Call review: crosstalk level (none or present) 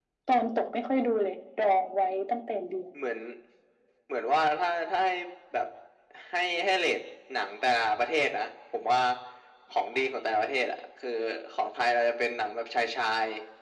none